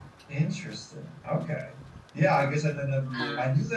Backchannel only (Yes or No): Yes